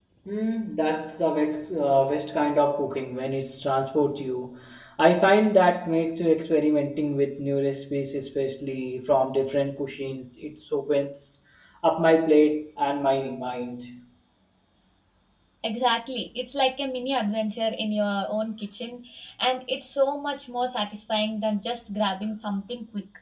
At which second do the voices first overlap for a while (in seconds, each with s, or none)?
none